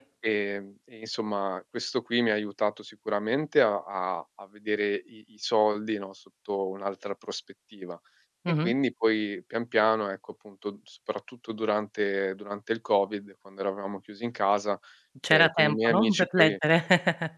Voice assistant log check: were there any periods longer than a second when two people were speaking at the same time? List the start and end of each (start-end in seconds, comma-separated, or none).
15.3-16.6